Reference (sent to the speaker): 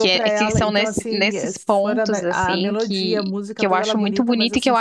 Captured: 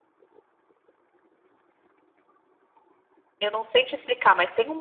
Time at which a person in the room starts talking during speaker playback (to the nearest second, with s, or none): 3 s